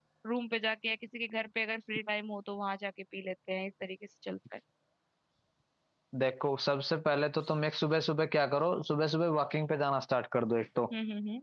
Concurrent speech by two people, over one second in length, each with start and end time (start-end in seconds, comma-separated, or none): none